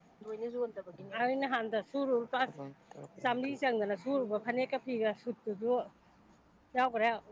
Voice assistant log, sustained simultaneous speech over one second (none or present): none